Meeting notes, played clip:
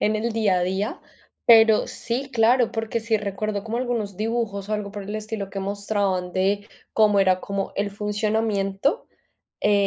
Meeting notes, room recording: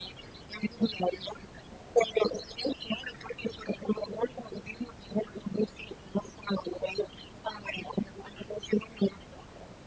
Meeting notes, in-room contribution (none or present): none